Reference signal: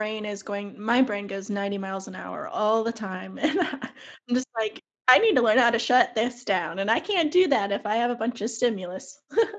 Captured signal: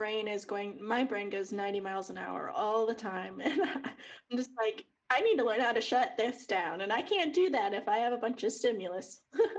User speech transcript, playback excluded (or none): none